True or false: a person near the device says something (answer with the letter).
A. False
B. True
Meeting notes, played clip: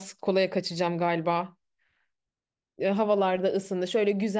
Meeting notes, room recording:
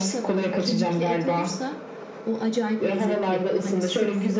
B